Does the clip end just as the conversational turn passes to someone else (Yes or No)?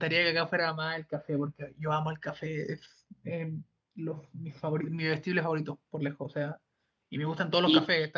No